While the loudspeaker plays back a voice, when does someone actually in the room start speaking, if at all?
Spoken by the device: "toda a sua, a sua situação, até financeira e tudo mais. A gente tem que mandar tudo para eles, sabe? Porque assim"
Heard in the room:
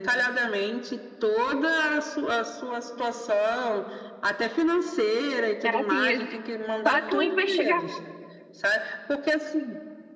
6 s

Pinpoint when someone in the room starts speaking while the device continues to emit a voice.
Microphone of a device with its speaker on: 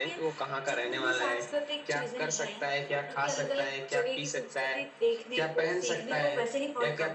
none

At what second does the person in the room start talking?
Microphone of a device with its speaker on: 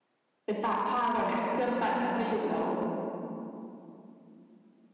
0 s

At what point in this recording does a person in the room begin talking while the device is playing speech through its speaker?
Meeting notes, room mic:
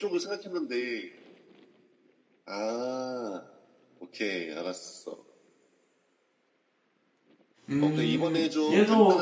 8 s

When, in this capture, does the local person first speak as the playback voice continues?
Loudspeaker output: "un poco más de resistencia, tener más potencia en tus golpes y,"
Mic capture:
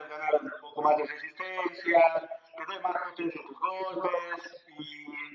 none

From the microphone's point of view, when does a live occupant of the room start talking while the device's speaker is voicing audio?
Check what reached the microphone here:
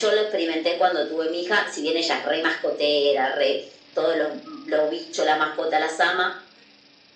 none

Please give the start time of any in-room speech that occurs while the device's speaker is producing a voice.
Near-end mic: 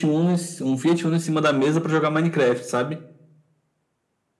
none

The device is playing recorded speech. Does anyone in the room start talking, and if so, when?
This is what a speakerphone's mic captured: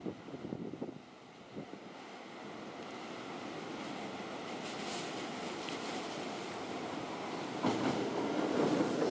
none

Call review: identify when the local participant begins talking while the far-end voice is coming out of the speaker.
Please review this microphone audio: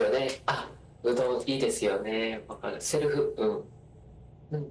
none

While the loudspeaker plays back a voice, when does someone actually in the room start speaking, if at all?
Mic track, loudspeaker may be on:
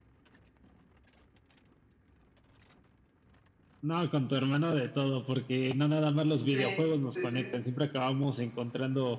6 s

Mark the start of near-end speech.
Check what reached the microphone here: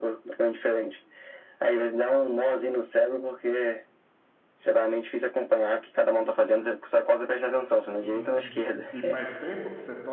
8 s

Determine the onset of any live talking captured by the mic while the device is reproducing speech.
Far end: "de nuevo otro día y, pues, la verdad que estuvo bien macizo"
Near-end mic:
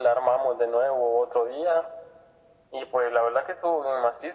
none

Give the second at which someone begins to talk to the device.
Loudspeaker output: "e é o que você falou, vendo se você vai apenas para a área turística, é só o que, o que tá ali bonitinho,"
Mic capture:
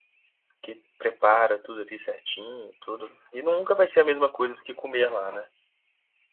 1 s

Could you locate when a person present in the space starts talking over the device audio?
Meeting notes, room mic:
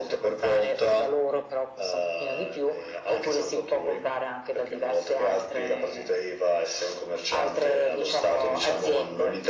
none

